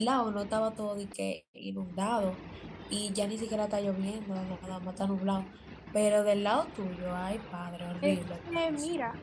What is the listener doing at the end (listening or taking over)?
taking over